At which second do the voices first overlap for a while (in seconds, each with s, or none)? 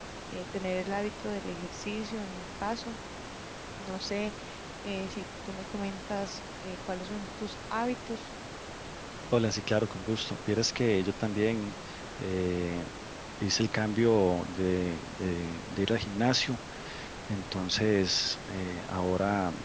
none